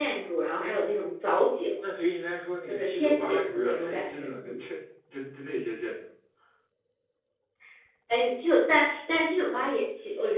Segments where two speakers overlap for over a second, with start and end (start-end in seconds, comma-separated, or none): 2.7-4.6